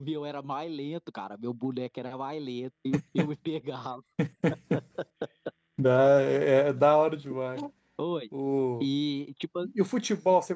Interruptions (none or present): none